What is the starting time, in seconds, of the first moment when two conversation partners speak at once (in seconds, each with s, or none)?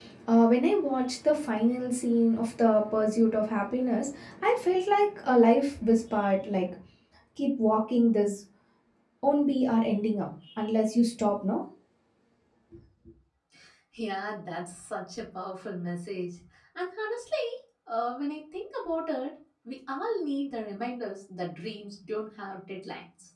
none